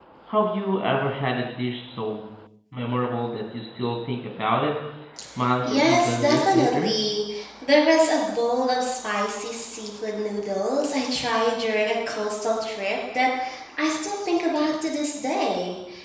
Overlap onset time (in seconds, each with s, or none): 5.6 s